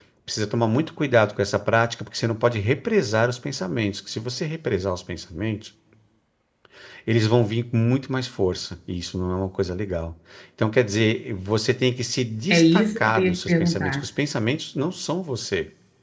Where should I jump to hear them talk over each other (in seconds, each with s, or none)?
12.5 s